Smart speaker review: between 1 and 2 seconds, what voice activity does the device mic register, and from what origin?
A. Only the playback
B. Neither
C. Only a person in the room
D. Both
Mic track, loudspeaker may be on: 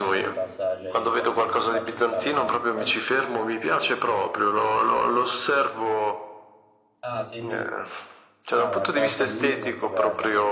D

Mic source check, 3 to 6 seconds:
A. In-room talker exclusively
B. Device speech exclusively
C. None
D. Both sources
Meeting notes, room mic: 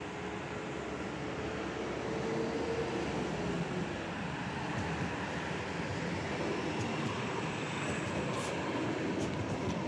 C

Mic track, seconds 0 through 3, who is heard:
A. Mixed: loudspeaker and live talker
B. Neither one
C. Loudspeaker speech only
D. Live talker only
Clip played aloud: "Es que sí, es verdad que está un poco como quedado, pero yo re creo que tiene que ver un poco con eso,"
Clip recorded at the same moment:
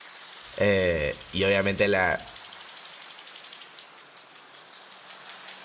D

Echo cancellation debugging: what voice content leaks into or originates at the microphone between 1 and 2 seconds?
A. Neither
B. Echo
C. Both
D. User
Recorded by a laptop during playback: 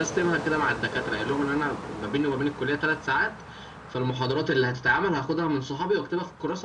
B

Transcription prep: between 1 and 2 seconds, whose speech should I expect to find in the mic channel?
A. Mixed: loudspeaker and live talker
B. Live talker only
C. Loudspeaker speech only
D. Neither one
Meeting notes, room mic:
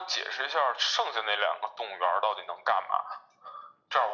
C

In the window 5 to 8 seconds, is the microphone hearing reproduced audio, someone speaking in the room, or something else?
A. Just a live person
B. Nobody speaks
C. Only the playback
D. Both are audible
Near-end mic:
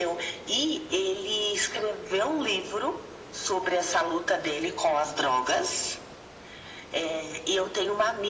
C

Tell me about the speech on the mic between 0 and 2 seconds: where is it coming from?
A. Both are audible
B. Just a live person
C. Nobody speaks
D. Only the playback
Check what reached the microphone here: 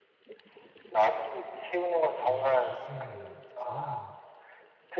D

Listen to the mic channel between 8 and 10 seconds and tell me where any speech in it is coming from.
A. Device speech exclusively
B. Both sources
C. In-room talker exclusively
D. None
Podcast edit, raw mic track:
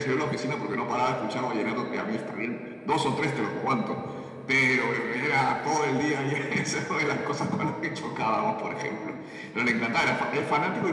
A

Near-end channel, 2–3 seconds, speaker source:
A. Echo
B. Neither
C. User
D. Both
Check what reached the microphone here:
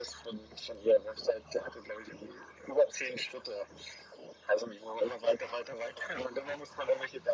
A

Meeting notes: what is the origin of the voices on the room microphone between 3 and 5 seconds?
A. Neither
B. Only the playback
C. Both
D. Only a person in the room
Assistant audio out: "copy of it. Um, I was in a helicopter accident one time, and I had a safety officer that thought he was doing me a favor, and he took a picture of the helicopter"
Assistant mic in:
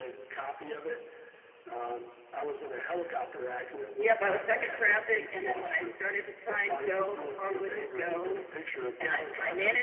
C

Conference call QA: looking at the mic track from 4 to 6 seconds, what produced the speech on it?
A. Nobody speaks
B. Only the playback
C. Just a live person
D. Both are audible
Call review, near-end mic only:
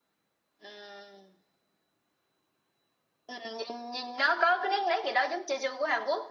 B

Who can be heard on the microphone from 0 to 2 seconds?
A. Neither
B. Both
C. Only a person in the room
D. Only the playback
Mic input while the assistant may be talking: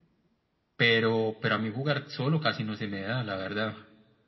D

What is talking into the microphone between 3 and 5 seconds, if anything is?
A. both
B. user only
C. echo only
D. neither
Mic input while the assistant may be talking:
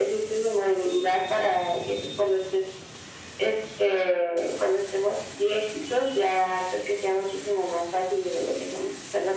C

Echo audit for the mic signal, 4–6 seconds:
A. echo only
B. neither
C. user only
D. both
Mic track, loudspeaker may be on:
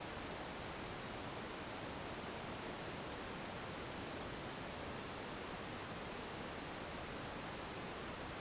B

